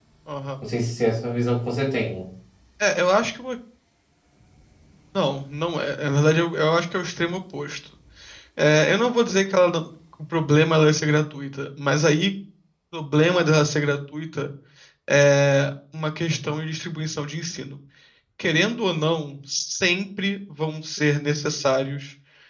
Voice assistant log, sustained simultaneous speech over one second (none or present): none